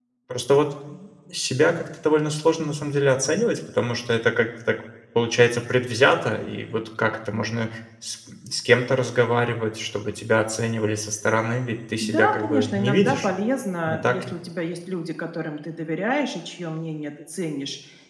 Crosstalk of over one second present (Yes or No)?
Yes